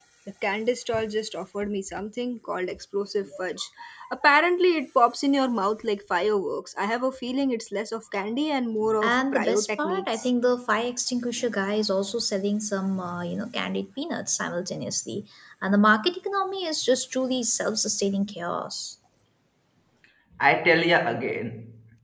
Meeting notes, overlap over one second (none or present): present